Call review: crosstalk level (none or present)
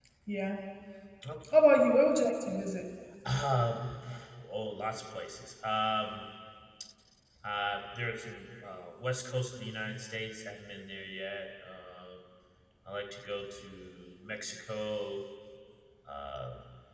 none